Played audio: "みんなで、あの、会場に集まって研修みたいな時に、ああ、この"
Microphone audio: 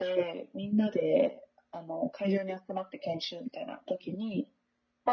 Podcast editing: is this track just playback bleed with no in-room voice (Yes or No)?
Yes